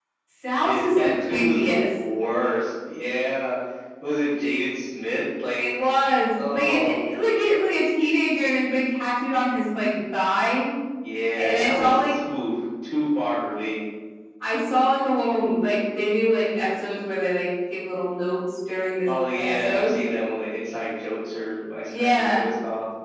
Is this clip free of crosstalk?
No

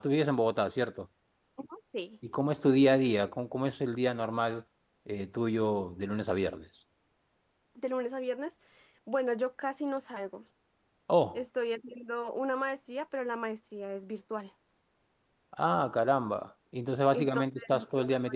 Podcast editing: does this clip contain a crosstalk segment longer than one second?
Yes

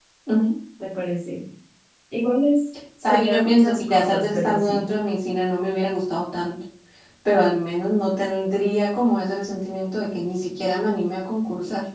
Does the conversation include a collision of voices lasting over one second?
Yes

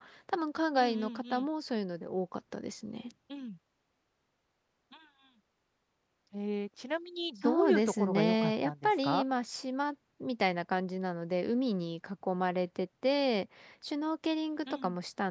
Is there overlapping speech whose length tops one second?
Yes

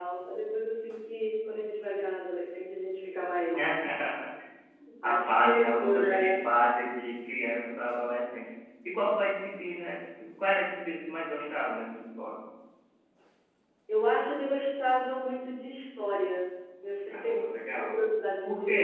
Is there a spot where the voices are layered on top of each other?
Yes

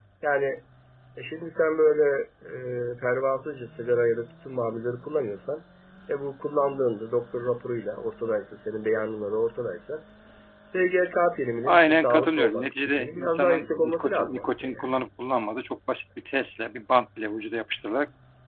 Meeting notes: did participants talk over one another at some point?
Yes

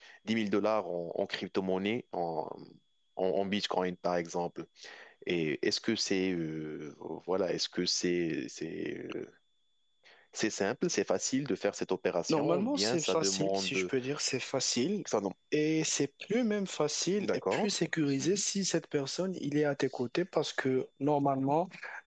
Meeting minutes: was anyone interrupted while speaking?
Yes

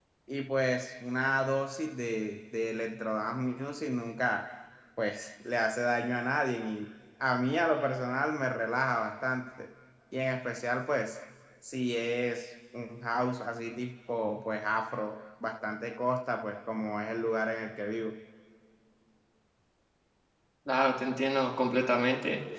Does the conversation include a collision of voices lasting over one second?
No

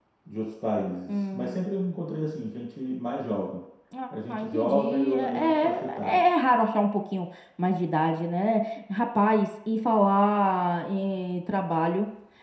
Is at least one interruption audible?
Yes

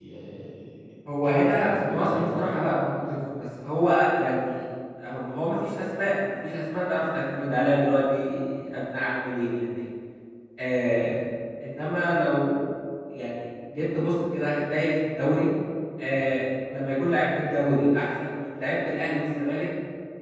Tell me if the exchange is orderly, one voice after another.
No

